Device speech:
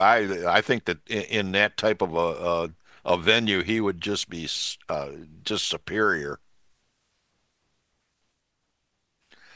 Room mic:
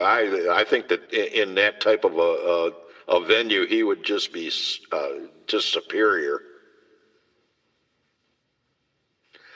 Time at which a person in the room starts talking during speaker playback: none

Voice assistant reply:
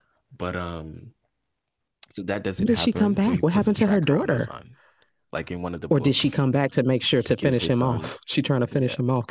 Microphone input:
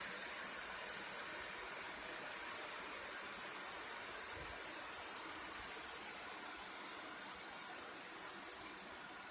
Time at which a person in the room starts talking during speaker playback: none

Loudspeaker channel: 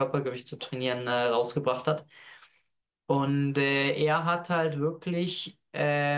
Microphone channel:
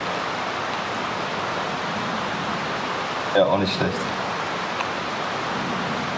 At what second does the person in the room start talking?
3.3 s

